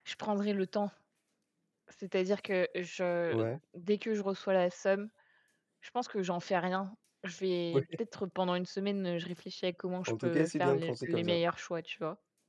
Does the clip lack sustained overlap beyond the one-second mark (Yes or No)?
No